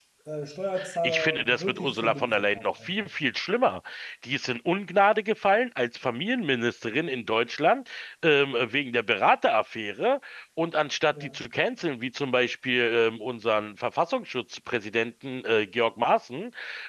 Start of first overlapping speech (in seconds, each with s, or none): 1.0 s